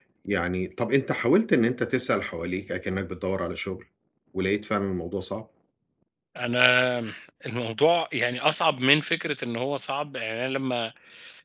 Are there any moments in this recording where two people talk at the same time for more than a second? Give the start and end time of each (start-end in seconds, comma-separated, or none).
none